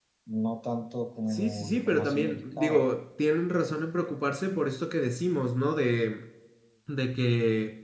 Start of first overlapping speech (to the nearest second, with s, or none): 1 s